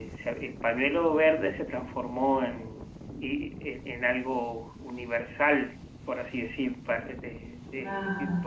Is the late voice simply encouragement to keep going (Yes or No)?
Yes